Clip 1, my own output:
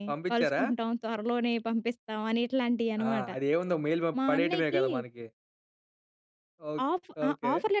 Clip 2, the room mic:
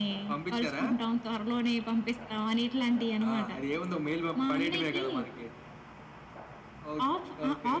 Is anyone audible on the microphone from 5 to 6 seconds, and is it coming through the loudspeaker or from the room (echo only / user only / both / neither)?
echo only